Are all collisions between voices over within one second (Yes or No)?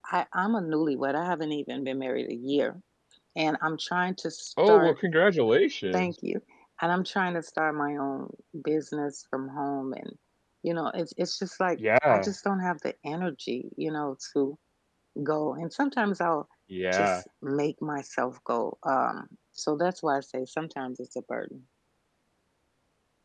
Yes